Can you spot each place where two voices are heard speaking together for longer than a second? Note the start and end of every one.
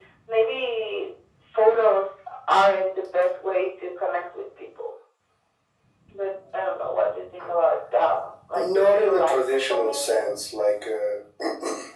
8.5-10.2

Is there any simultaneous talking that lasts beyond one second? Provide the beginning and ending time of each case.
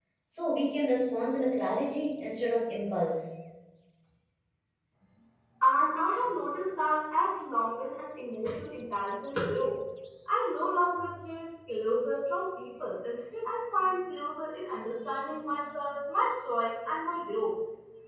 none

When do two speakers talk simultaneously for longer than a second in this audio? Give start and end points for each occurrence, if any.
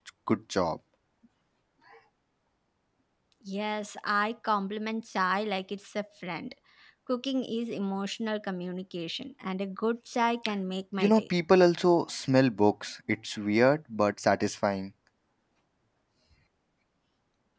none

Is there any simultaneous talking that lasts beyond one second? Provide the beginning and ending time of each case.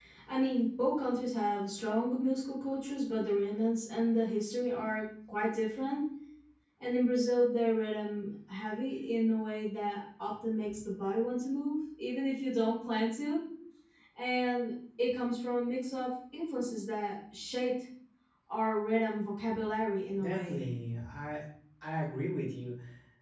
none

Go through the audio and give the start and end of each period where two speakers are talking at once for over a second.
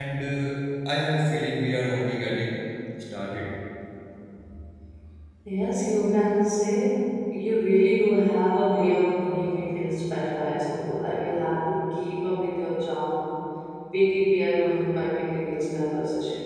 none

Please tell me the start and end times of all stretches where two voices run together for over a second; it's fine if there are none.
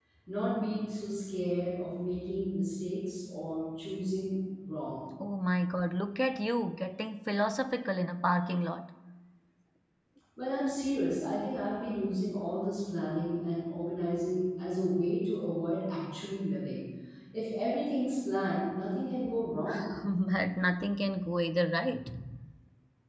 none

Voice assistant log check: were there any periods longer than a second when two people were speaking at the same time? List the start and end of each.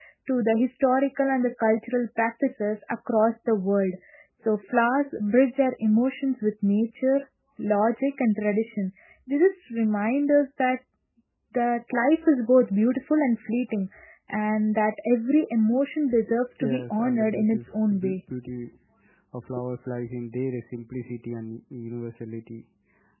16.6-18.1

